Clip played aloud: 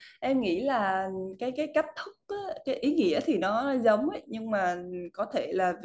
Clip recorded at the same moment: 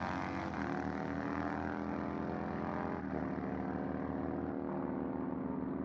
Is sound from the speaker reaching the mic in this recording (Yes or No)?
No